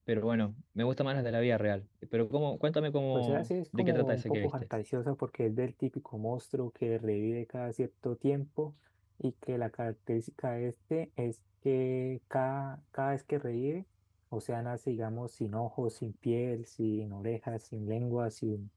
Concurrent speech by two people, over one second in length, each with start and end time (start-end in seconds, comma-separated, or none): 3.1-4.5